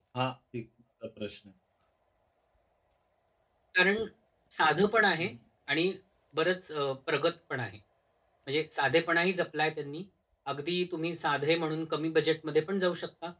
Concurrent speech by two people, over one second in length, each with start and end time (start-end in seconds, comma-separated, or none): none